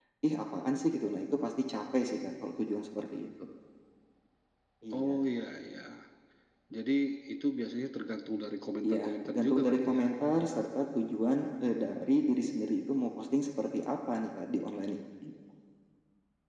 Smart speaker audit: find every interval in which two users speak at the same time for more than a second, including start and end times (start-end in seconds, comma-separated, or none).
8.8-10.0